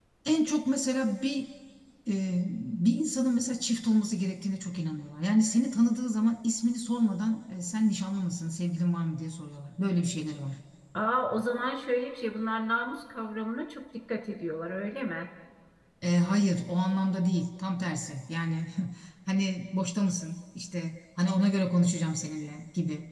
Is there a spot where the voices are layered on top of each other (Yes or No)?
No